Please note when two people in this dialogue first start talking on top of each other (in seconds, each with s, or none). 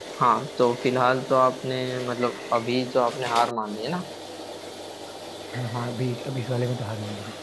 none